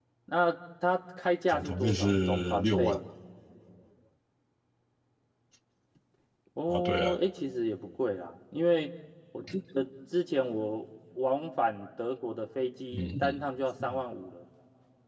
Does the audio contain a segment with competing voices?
Yes, from 1.5 s

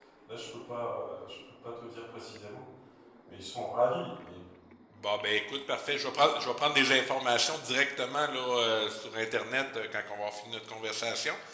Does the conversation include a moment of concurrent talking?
No

